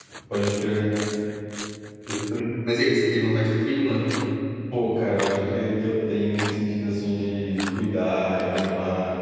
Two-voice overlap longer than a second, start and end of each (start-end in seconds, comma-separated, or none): none